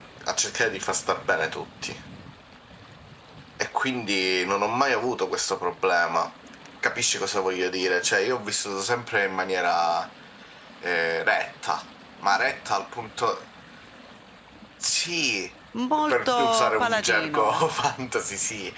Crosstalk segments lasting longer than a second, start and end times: 16.1-17.7

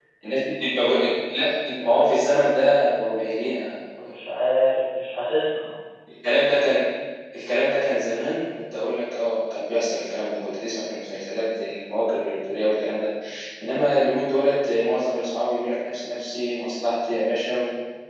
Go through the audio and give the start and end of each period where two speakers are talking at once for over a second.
none

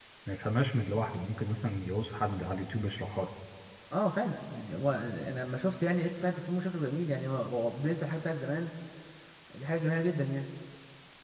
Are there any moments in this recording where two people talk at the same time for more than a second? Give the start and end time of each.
none

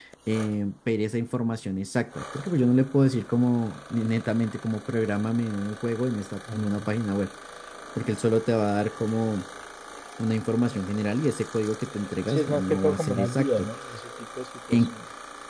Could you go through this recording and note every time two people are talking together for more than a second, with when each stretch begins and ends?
12.3-13.7

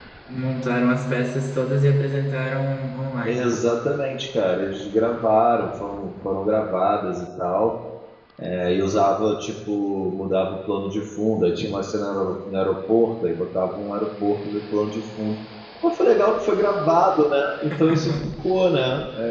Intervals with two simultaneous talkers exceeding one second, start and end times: none

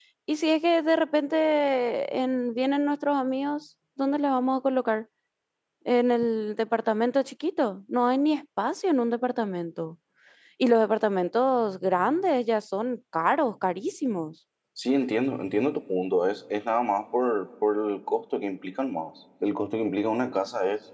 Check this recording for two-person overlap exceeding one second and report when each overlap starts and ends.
none

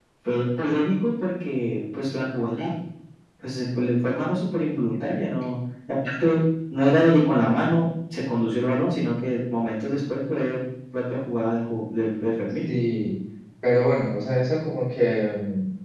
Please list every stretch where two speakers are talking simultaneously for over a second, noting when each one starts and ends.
none

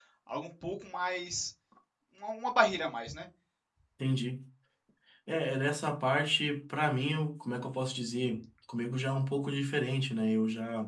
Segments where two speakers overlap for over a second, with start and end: none

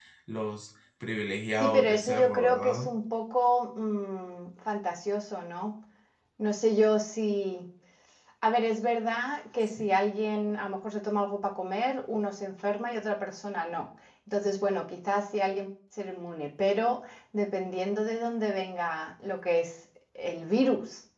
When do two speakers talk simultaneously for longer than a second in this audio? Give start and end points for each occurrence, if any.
1.6-2.8

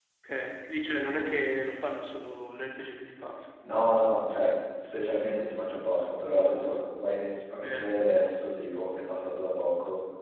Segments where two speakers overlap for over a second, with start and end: none

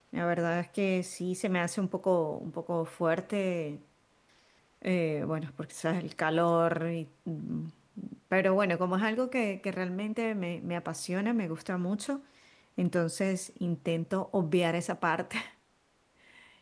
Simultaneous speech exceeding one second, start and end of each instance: none

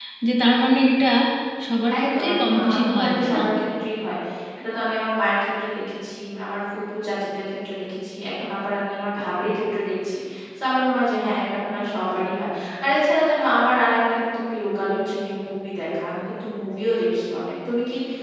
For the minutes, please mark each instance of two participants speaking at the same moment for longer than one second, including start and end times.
2.0-3.4

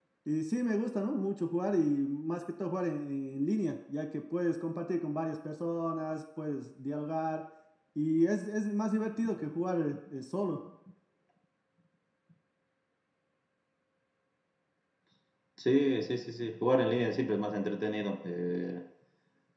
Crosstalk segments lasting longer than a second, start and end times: none

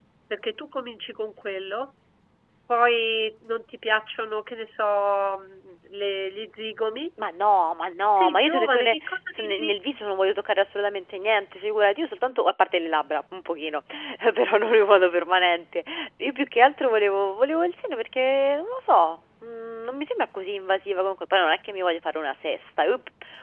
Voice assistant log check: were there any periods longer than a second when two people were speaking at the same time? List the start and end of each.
8.2-9.7

